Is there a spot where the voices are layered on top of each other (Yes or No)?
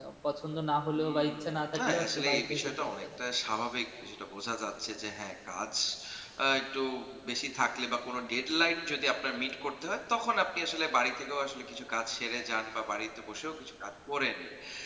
Yes